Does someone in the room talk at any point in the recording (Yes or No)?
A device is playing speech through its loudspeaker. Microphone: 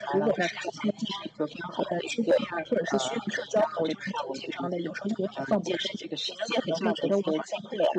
No